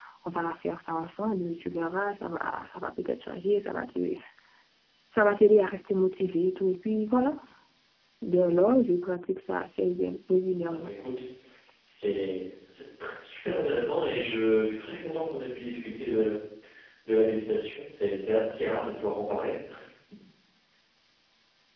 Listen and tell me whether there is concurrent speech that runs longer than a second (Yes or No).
No